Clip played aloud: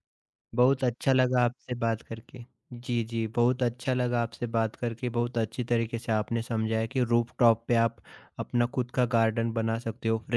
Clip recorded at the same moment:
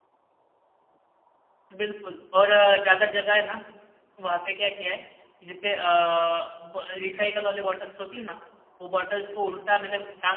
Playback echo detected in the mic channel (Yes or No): No